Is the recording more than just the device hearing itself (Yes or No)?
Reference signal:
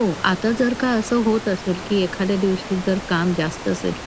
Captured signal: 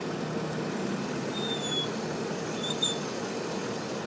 No